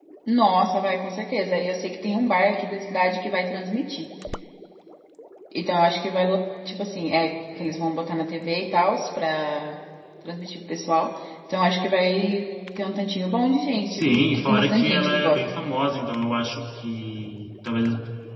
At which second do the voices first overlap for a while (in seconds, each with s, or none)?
13.9 s